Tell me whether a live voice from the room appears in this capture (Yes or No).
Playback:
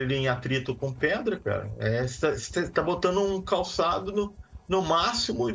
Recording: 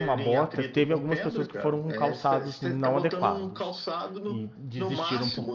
Yes